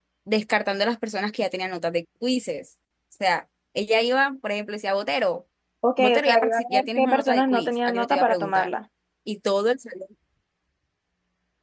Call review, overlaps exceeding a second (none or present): present